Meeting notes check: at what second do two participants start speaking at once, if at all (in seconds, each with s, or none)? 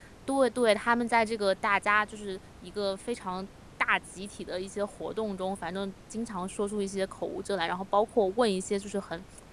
none